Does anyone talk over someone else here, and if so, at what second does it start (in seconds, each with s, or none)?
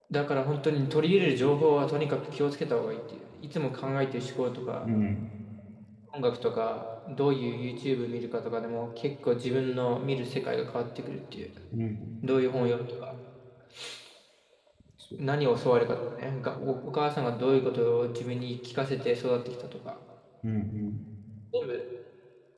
none